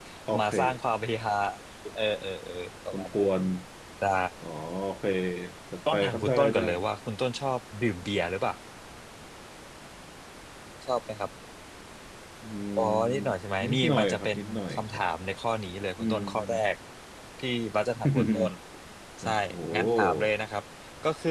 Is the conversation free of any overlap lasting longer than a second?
No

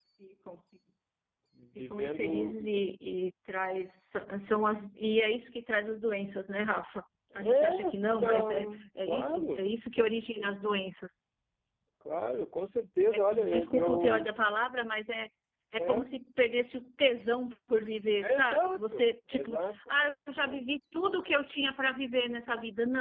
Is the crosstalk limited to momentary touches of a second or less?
No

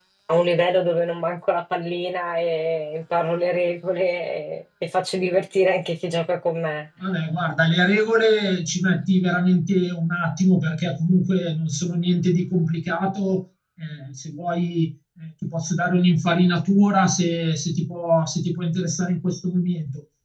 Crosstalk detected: No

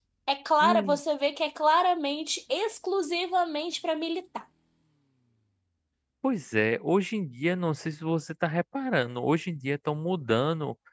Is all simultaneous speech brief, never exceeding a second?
Yes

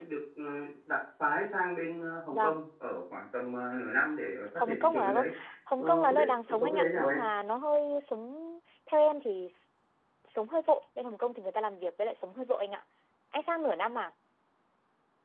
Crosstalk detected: Yes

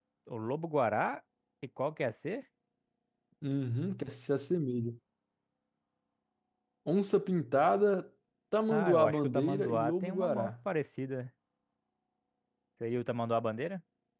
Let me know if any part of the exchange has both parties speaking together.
Yes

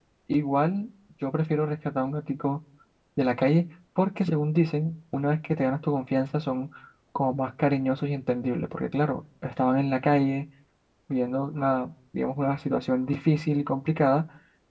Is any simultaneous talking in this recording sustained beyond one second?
No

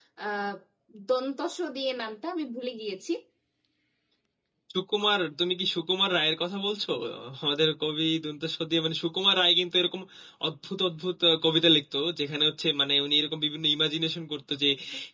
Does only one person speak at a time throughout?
Yes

